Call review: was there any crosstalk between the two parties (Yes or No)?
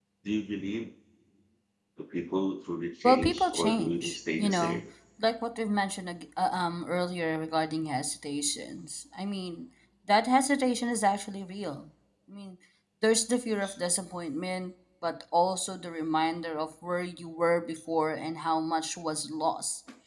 Yes